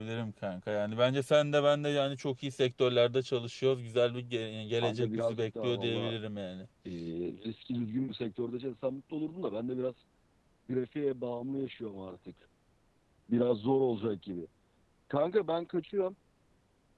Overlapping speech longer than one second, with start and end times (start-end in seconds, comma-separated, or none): 4.8-6.1